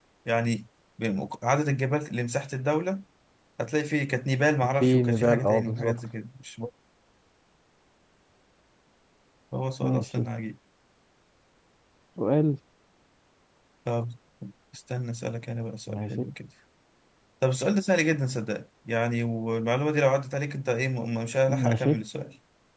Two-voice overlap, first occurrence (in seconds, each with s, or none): 4.8 s